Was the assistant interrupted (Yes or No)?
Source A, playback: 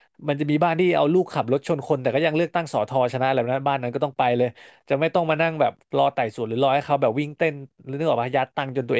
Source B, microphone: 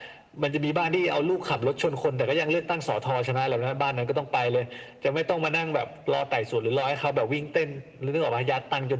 No